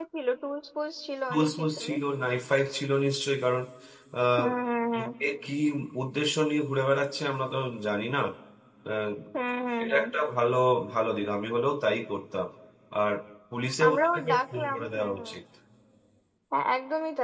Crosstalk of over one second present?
Yes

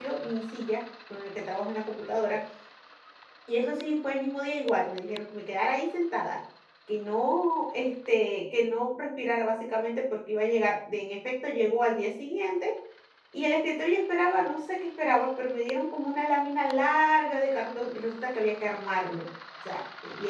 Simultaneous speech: No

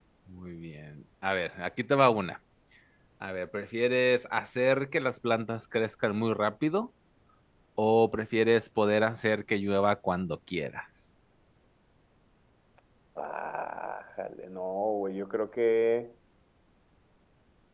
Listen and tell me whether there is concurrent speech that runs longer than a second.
No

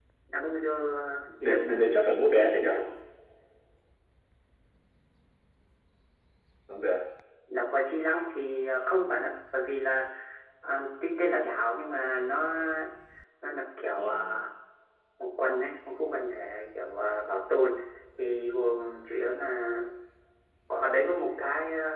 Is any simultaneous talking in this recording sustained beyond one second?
Yes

